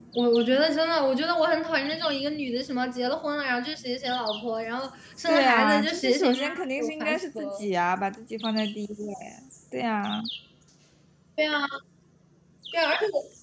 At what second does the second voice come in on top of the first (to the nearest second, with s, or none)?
5 s